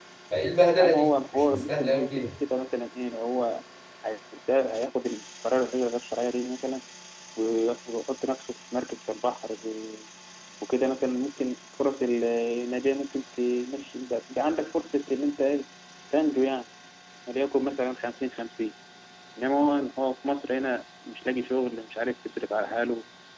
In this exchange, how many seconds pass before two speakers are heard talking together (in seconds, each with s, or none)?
0.8 s